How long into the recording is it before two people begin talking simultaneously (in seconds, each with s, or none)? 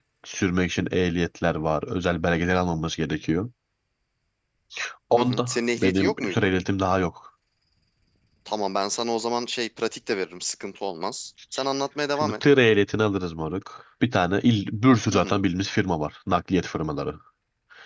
5.2 s